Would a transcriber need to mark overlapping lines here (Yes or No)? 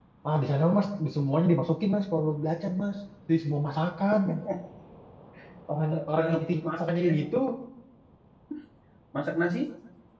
Yes